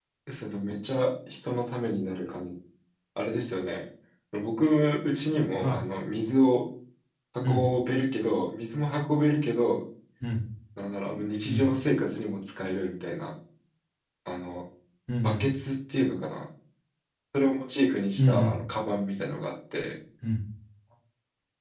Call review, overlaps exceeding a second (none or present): none